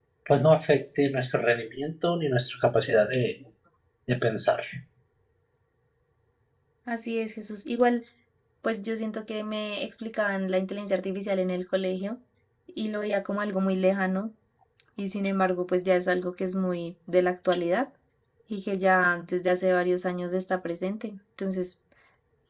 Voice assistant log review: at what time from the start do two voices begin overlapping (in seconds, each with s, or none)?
none